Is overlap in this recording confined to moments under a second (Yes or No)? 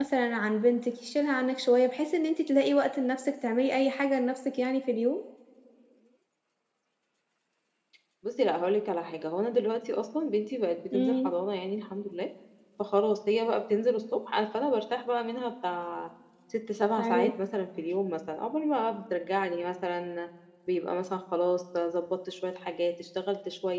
Yes